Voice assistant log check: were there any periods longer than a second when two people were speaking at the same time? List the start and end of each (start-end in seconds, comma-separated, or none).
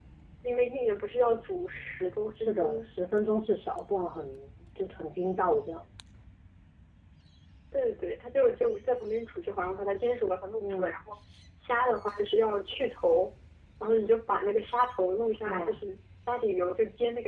none